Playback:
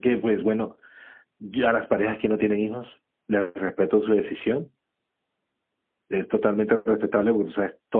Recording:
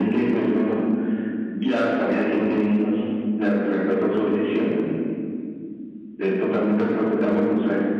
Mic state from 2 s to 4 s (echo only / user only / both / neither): echo only